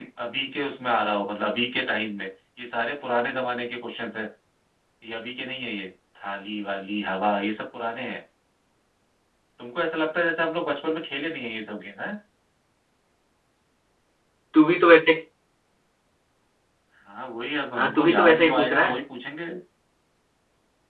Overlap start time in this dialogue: 18 s

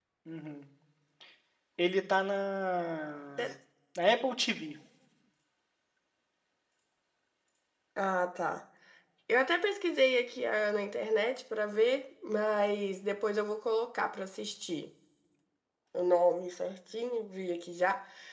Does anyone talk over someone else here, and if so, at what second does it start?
none

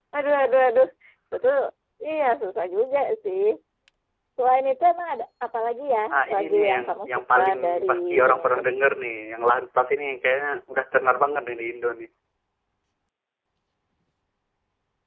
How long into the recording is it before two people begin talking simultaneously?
6 s

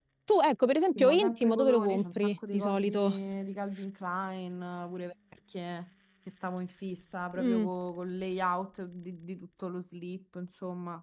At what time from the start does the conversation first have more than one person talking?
1 s

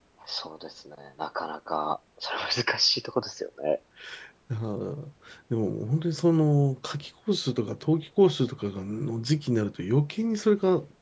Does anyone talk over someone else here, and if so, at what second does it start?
none

